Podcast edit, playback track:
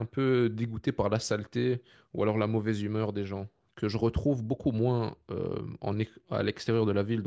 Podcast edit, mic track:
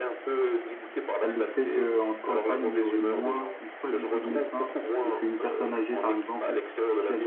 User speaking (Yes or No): Yes